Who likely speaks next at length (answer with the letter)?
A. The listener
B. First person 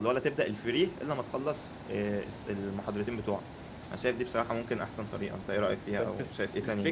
A